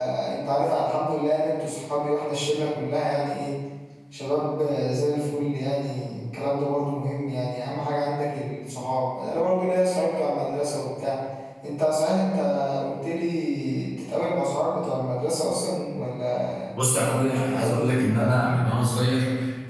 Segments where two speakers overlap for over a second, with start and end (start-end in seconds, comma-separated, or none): 17.2-18.6